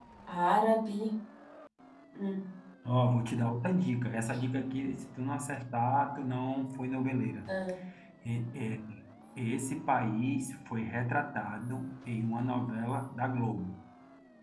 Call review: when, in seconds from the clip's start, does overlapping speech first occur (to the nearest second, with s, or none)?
none